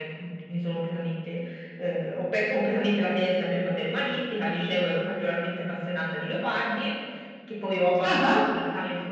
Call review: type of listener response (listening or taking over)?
listening